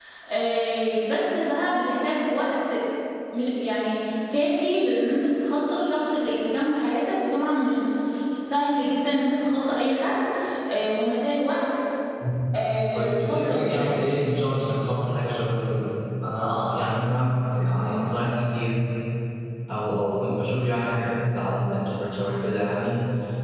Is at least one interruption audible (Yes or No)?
Yes